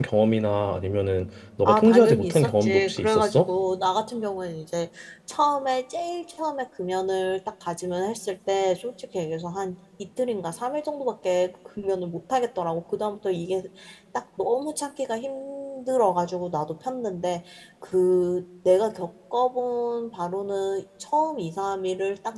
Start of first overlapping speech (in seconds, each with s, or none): 1.6 s